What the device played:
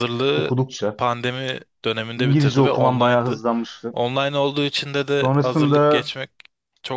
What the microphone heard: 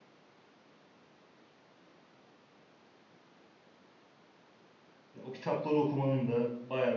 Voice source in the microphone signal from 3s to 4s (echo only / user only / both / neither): neither